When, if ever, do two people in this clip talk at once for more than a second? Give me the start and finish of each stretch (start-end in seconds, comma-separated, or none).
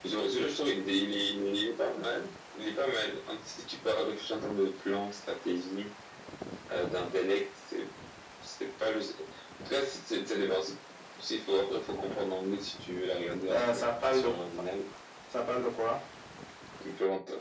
none